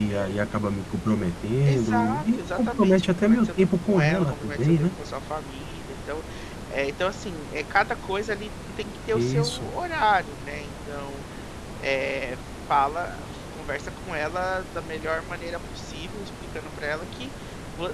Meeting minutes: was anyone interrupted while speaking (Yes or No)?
Yes